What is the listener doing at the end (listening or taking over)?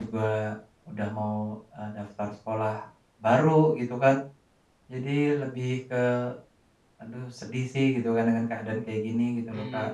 taking over